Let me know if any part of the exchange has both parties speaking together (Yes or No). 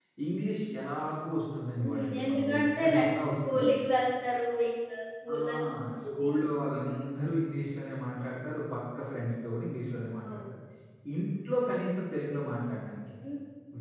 Yes